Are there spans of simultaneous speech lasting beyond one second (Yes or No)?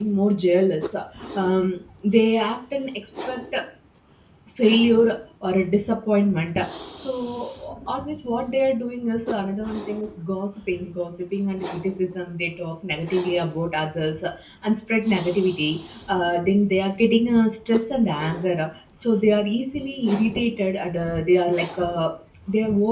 No